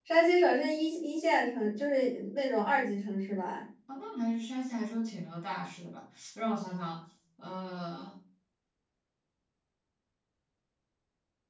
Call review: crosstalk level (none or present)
none